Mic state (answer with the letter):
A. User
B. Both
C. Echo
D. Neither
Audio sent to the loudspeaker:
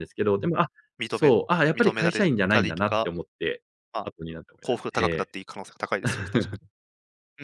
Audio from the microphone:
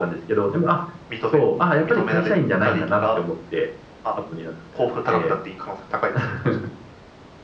C